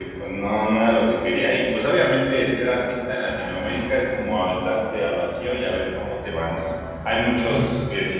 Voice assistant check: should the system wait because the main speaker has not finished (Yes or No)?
Yes